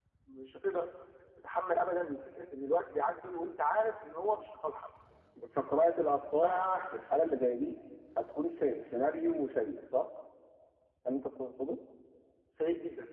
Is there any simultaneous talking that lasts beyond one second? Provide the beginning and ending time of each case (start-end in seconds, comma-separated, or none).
none